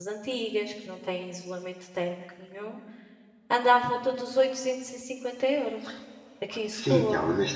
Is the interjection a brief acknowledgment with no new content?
No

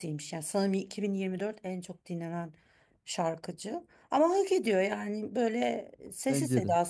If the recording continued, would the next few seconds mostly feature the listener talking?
No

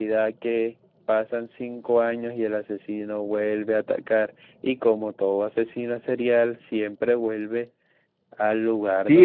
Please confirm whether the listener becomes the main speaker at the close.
Yes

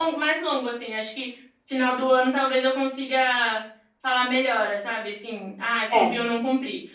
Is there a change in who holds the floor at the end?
No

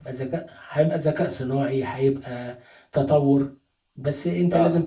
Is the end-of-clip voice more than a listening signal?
No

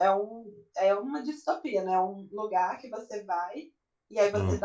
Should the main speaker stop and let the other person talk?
No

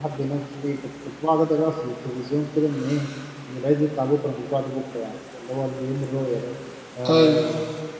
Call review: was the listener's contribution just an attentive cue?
Yes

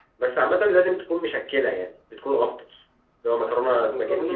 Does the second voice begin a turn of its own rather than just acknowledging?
Yes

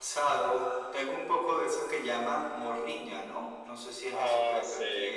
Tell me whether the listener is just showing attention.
No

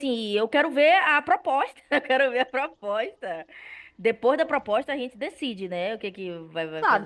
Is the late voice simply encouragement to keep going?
No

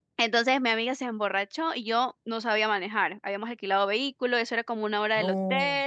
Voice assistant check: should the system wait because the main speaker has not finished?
Yes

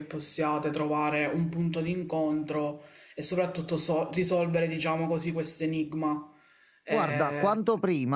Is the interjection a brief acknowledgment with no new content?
No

